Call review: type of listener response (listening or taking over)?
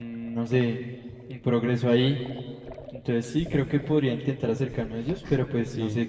taking over